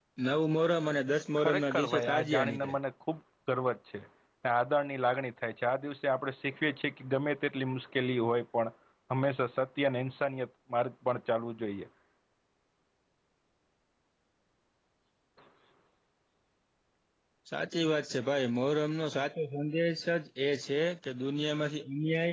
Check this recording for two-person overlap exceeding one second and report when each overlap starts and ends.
1.4-2.8

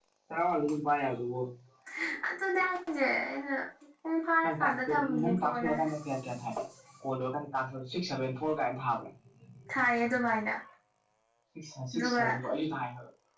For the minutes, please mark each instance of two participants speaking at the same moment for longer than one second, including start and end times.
4.4-5.8

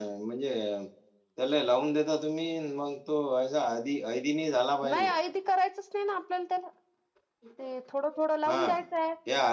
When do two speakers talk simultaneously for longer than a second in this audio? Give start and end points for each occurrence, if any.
none

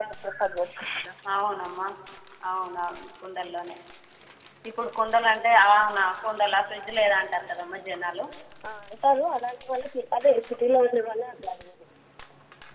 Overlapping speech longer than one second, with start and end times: none

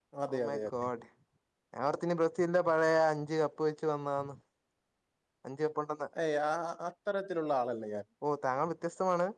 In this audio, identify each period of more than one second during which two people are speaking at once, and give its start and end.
none

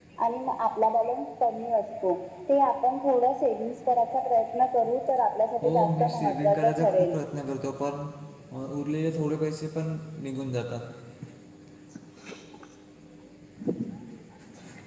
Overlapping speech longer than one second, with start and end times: 5.6-7.1

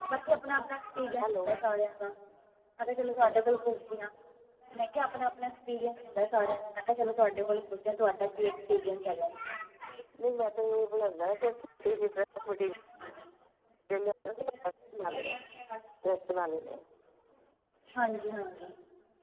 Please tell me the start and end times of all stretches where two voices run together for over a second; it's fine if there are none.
none

